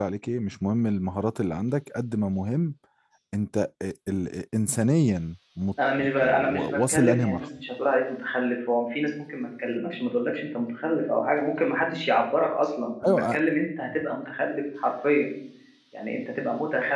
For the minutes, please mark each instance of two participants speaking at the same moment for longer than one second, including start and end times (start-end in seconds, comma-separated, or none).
6.2-7.5